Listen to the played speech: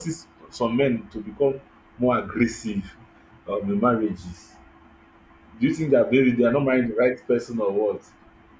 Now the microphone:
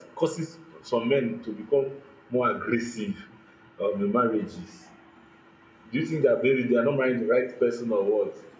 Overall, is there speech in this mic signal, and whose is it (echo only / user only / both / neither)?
echo only